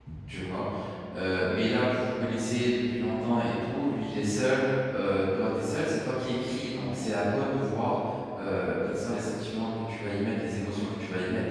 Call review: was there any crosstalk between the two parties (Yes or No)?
No